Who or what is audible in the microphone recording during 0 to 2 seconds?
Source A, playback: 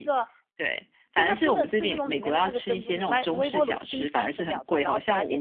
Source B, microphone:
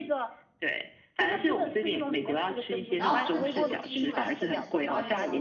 echo only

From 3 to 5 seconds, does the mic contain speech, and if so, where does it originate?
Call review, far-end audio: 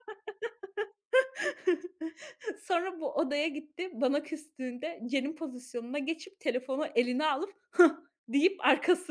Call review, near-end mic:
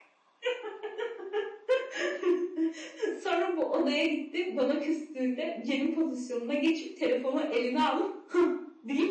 echo only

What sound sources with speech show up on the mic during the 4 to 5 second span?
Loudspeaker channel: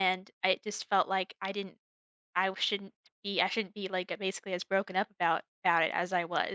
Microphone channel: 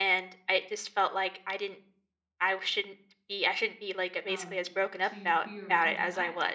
both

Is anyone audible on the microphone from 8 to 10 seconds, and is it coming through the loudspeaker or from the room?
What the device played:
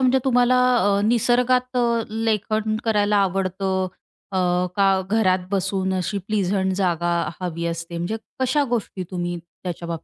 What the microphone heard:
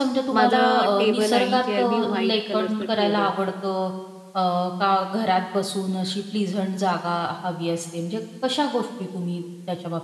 echo only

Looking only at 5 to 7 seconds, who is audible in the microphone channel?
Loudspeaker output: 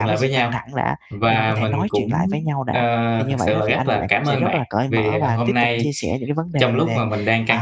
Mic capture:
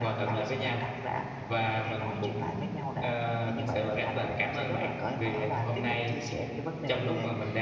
echo only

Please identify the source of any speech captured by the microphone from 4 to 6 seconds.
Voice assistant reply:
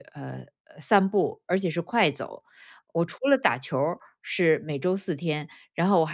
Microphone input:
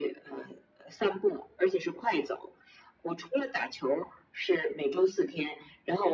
echo only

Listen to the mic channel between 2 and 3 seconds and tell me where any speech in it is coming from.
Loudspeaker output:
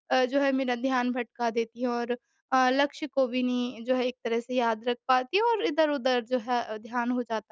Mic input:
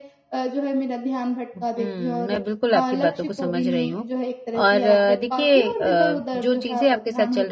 both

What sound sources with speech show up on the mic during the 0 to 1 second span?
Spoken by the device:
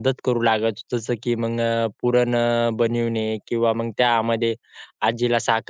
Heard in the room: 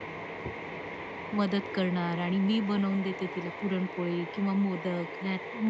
neither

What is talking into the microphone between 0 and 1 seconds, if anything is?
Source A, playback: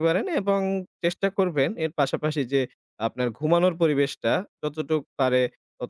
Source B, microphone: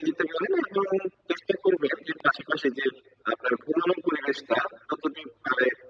echo only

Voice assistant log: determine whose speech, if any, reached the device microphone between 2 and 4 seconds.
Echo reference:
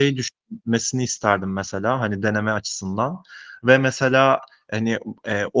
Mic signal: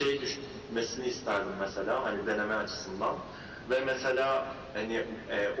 echo only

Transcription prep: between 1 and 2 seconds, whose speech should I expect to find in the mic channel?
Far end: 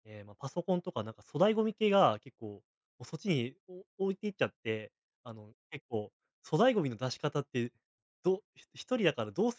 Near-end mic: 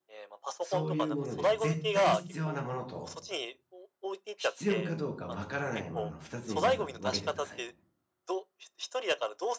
both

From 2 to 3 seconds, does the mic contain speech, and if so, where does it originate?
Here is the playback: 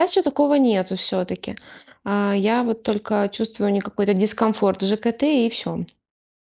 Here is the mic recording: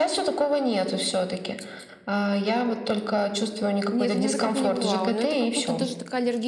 echo only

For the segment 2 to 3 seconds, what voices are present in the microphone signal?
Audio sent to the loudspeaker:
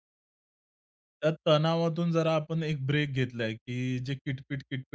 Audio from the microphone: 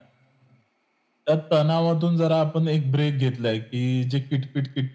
echo only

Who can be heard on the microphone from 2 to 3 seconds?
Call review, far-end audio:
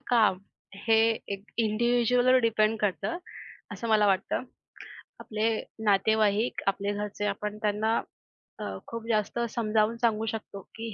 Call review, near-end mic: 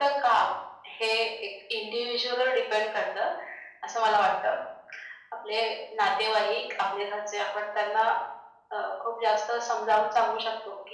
echo only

